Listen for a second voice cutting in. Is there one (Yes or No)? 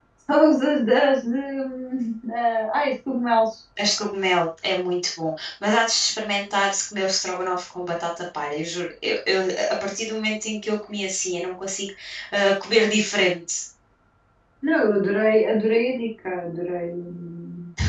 No